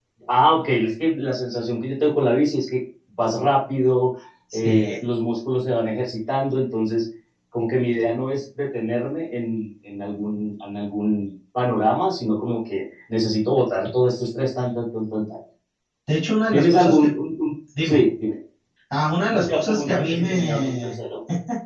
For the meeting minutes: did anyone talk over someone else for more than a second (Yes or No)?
Yes